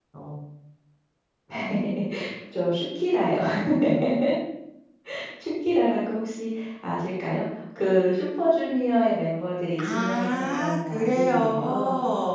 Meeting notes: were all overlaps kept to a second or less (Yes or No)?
No